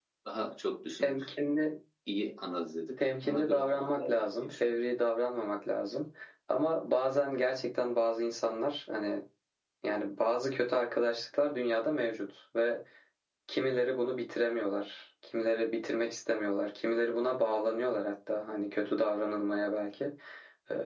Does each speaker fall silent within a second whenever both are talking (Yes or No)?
No